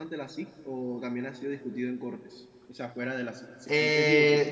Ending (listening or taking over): taking over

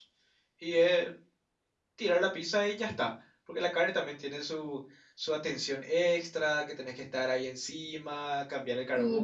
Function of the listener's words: taking over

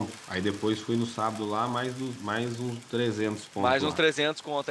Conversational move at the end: taking over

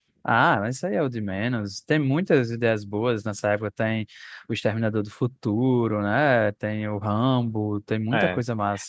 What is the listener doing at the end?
taking over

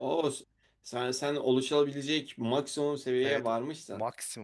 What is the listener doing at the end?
taking over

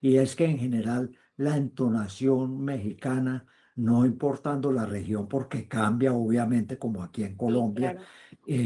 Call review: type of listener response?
listening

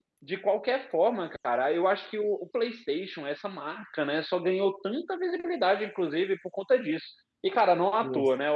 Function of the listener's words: listening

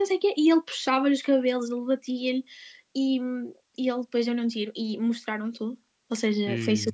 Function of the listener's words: listening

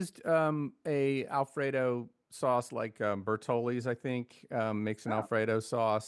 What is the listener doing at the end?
listening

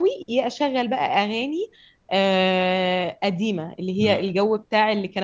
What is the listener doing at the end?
listening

